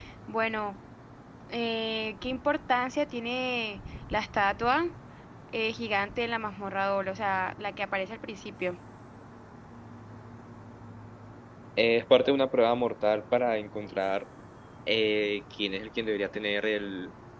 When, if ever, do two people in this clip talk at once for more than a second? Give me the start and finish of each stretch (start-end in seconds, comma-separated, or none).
none